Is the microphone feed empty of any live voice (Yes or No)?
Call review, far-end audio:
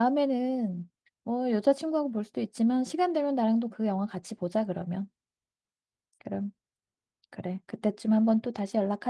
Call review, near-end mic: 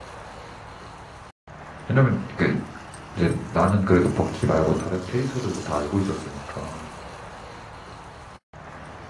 No